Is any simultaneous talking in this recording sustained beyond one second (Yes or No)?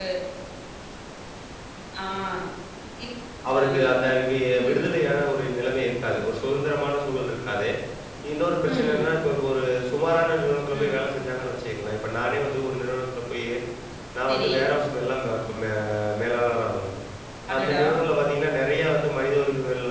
No